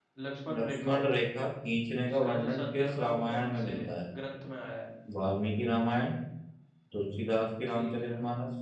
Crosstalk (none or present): present